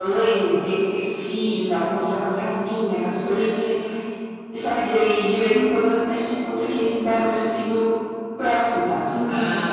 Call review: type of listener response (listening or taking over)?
taking over